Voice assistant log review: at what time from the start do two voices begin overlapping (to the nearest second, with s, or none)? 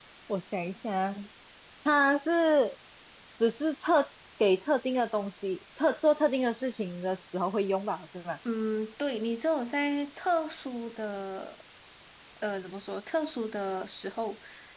none